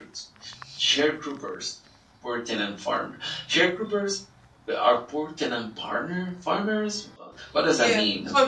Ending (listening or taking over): taking over